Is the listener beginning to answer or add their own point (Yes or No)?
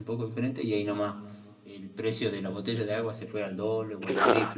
No